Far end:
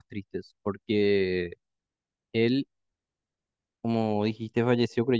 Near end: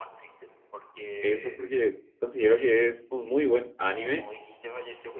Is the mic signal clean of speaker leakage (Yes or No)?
No